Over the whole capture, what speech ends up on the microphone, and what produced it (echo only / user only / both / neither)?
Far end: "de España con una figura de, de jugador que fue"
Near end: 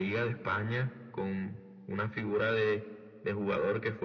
echo only